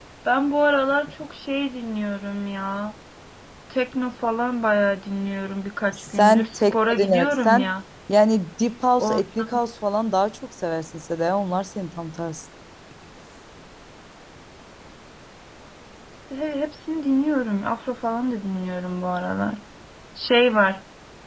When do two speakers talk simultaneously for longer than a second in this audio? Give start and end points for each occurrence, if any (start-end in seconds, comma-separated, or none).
5.9-7.7